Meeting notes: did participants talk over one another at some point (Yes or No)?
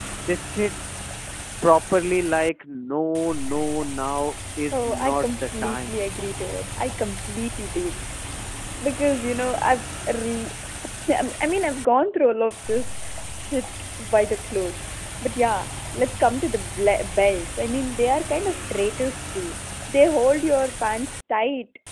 Yes